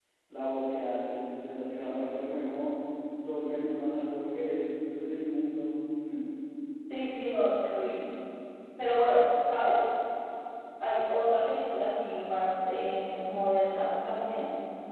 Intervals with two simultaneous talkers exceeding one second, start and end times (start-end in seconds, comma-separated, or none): none